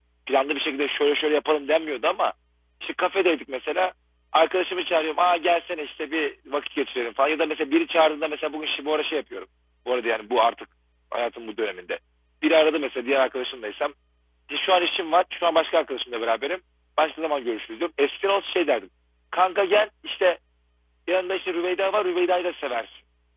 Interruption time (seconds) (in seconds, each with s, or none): none